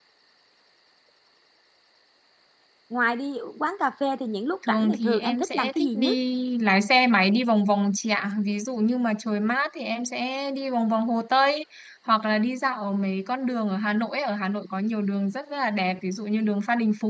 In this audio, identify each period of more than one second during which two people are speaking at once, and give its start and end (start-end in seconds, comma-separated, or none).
4.7-6.2